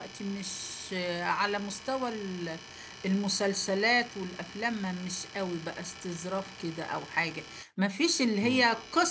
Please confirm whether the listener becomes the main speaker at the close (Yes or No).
No